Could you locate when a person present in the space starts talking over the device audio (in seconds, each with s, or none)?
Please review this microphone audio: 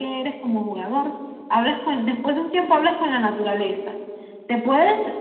none